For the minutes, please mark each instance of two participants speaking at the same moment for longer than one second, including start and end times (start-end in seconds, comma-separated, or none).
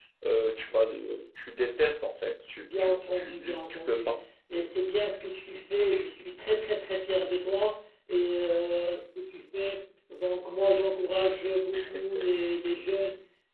2.6-4.2